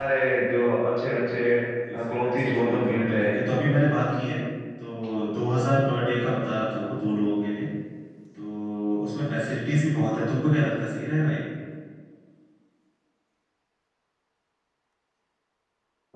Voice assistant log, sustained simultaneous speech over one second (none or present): present